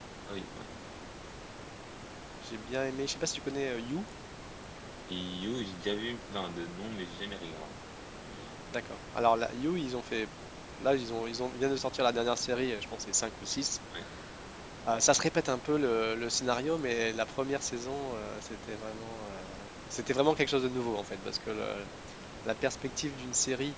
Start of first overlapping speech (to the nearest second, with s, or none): none